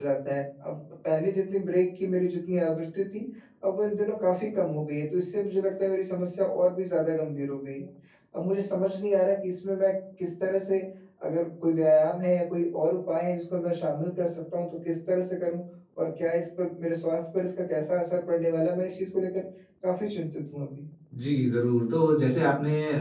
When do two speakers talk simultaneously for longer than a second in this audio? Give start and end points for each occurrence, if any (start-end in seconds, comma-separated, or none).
none